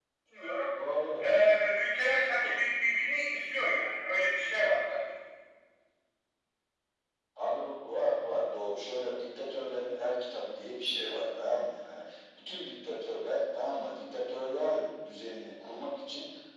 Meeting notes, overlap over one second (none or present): none